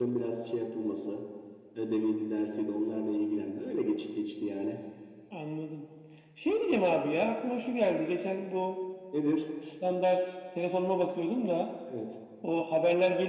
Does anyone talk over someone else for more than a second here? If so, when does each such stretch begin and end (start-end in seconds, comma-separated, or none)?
none